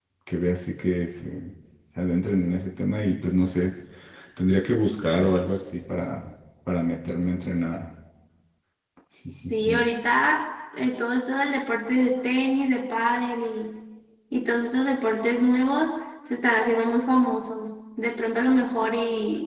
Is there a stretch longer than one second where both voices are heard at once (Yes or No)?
No